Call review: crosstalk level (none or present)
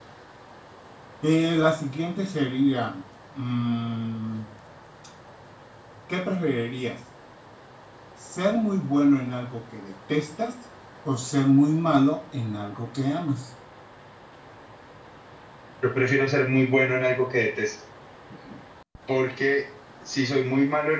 none